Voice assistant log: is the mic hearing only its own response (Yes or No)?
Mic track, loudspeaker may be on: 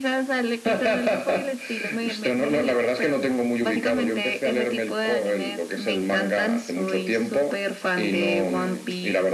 Yes